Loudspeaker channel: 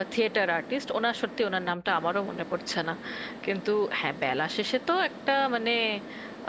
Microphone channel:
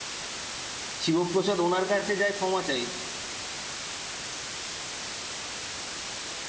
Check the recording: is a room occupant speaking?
Yes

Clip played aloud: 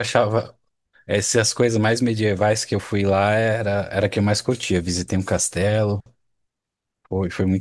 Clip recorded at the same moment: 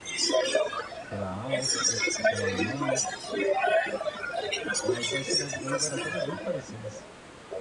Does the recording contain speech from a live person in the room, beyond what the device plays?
Yes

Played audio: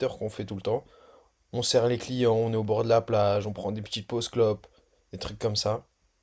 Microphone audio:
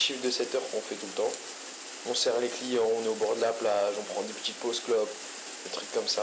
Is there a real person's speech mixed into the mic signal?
No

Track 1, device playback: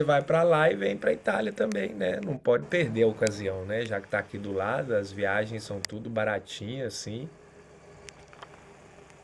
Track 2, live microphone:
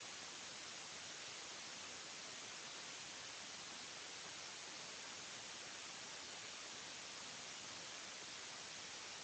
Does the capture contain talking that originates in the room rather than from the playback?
No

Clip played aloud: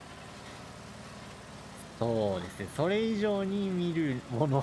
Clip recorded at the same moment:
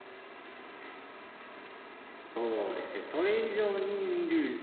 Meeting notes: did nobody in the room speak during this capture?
Yes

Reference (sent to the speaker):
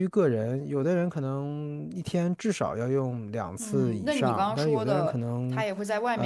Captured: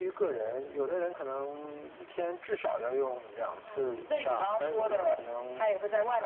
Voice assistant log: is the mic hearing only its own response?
Yes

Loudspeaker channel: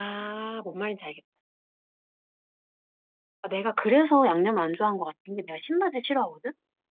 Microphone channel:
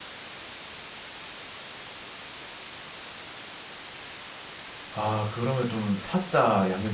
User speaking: Yes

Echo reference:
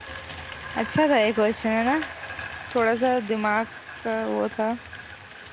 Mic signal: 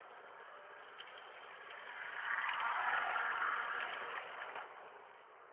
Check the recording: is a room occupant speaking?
No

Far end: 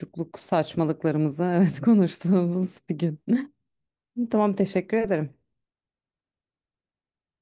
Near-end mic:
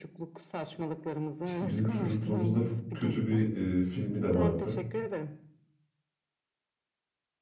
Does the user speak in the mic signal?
Yes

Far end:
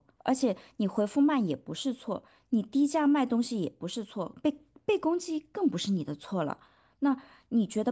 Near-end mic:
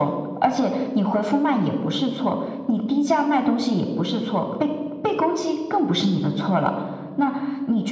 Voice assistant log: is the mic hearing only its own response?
Yes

